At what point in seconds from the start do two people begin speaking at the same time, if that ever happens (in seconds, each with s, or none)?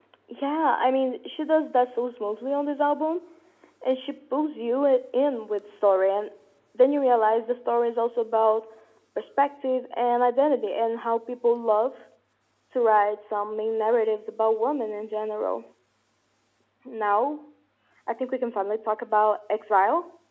none